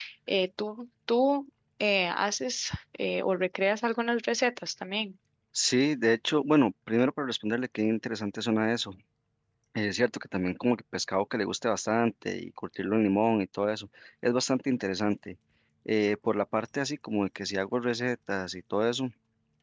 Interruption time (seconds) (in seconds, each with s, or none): none